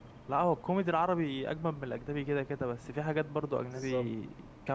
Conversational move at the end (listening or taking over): listening